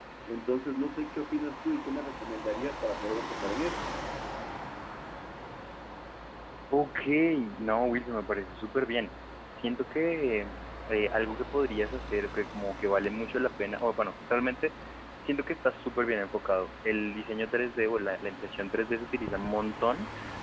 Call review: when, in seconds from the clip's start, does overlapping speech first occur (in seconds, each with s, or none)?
none